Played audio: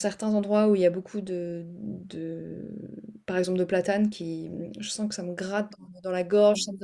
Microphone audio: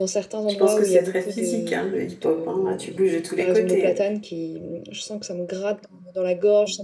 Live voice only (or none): Je pense que c'est très physique, hein, le hip-hop, hein. Ah, Tu bouges de tous les côtés, hein.